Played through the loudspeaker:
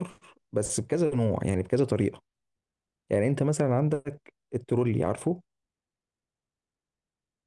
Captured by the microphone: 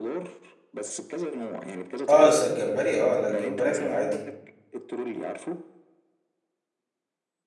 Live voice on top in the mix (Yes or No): Yes